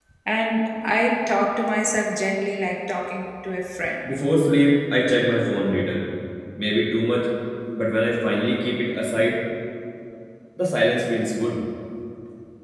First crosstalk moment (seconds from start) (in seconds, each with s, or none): none